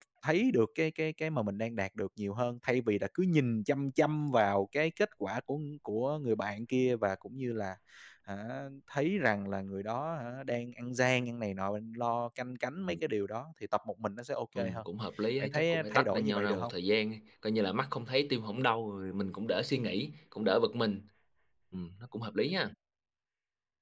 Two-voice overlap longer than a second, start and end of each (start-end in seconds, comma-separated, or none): 15.4-16.7